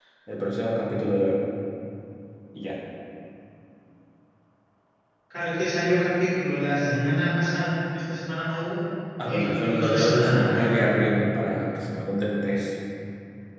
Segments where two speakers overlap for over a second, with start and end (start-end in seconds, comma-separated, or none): 9.2-10.7